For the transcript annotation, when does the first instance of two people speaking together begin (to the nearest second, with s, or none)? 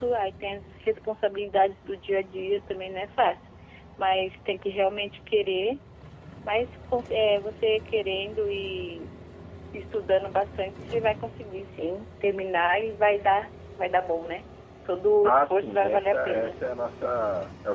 15 s